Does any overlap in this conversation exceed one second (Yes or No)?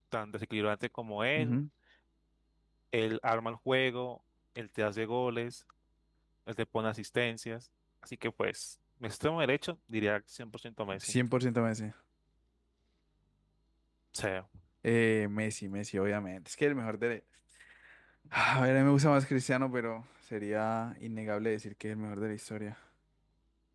No